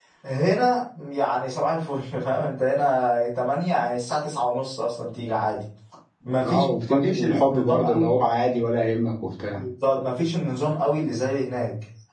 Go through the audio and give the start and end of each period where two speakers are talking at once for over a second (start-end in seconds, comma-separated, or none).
6.5-8.1